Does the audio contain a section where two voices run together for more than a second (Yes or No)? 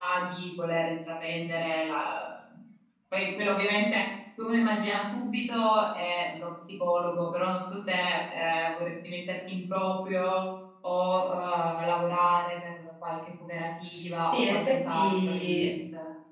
Yes